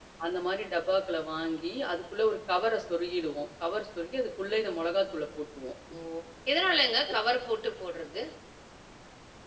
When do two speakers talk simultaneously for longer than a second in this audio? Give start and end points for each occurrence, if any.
none

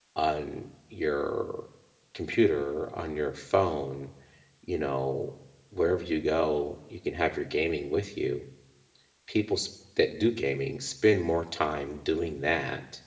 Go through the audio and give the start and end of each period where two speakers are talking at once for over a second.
none

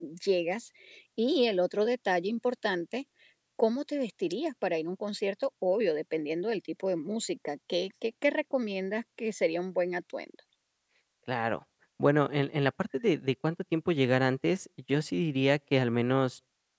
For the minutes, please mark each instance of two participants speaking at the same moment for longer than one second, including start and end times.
none

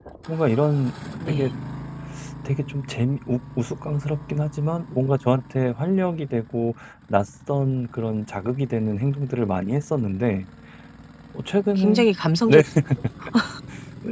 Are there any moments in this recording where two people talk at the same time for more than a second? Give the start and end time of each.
none

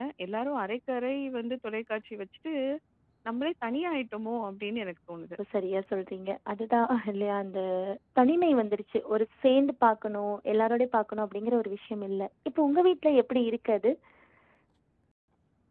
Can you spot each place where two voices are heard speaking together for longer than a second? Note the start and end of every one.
none

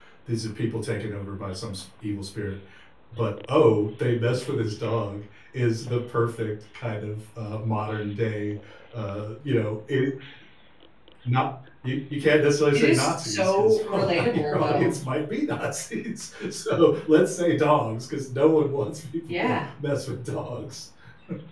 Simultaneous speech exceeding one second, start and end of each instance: 12.7-14.9

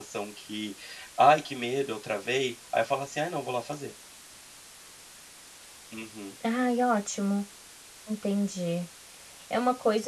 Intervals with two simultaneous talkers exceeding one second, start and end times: none

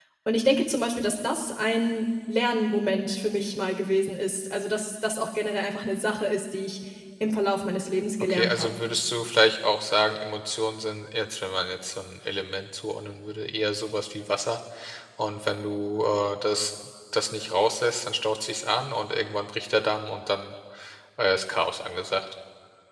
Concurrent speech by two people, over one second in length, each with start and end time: none

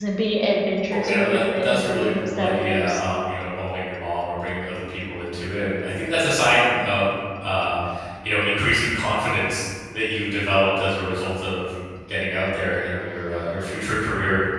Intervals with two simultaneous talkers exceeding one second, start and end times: 0.9-3.0

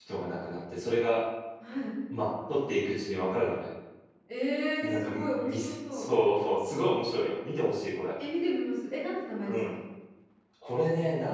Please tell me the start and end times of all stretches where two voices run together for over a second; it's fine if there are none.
4.8-6.1

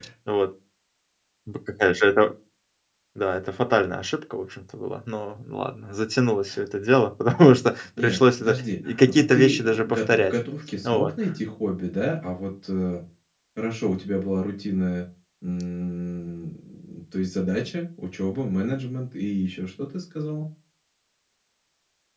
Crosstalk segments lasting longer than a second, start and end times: 8.0-10.3

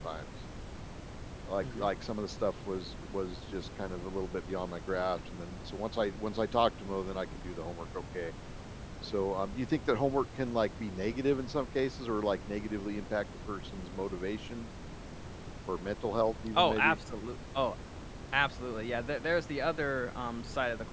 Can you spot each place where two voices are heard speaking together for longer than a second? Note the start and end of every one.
none

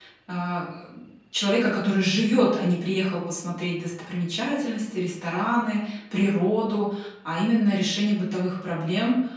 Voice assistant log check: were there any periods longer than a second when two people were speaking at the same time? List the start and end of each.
none

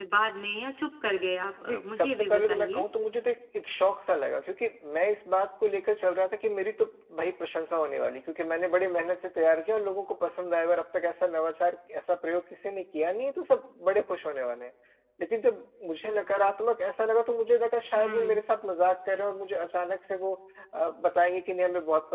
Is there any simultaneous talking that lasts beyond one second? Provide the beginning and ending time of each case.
1.6-2.8

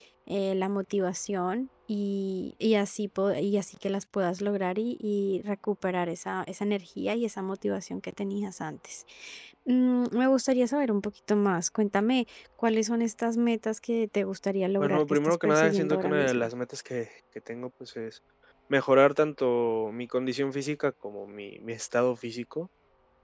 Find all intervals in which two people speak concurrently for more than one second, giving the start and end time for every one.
14.8-16.5

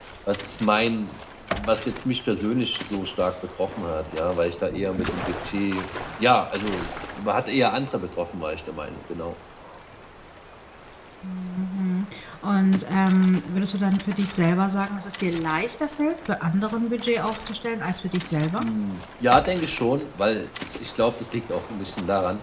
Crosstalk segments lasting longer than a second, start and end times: none

